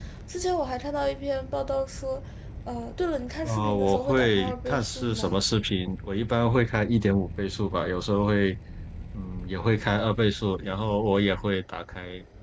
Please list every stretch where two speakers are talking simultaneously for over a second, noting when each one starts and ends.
3.4-5.3

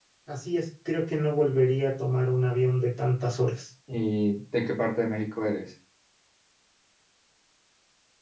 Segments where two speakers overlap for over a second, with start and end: none

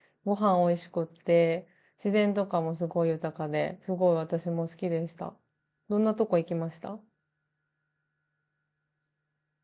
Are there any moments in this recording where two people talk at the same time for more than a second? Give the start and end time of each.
none

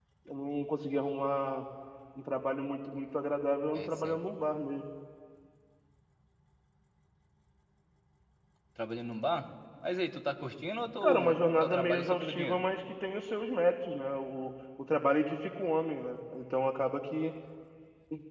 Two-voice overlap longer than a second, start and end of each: 11.0-12.6

